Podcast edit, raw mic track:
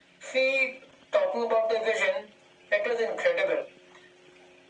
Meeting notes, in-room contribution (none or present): none